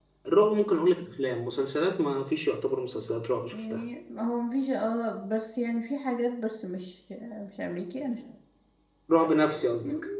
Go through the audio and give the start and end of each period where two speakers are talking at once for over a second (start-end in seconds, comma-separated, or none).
none